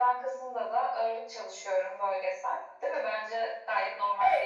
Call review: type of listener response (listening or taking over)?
taking over